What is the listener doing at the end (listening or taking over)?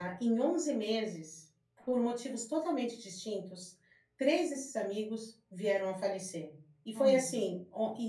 listening